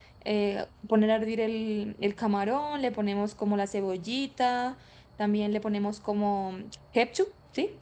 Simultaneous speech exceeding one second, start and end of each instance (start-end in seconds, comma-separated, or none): none